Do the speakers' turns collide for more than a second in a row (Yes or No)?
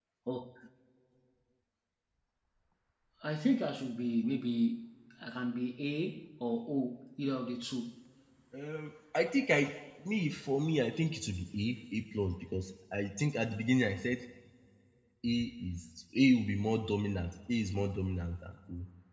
No